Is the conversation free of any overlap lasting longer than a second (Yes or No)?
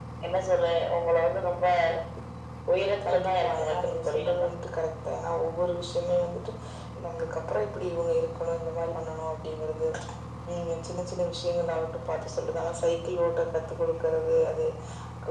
No